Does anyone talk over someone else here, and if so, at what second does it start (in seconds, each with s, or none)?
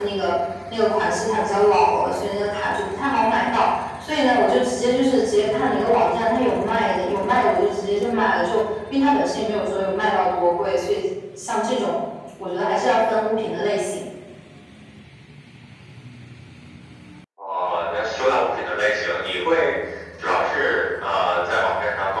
none